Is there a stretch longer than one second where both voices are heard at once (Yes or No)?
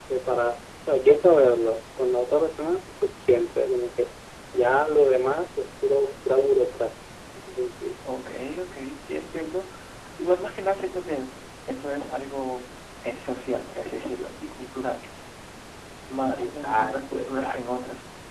Yes